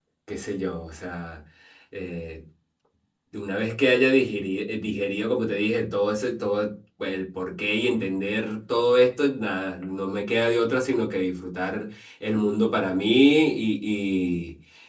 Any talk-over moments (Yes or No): No